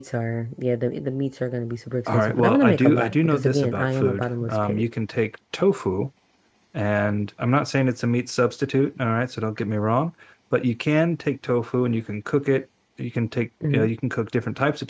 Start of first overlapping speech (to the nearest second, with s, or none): 2 s